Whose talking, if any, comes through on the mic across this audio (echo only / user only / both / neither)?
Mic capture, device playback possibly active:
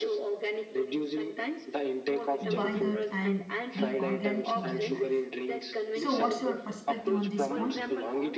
both